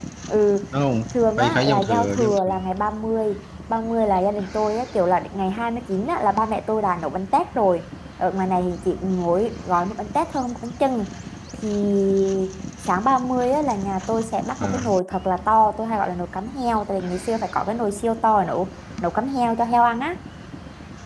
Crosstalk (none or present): present